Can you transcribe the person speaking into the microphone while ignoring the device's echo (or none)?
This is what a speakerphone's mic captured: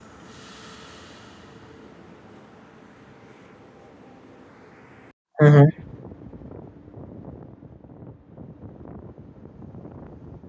hmm